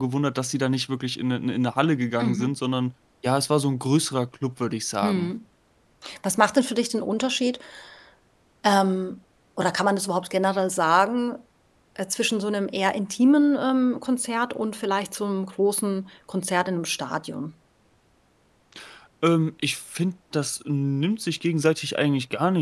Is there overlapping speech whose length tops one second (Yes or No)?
No